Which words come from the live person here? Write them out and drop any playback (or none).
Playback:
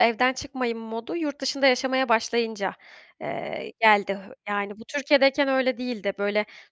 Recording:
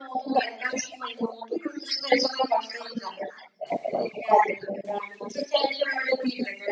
none